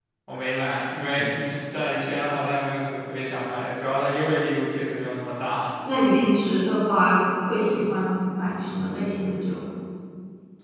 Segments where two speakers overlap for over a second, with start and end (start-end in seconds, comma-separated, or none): none